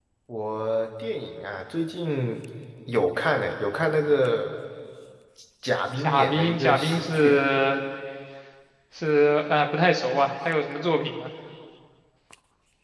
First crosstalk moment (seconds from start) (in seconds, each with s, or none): 6.0 s